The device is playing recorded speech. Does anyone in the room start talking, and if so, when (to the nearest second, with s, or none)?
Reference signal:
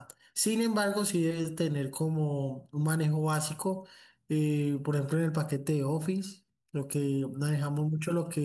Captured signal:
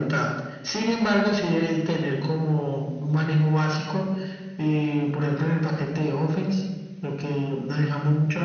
none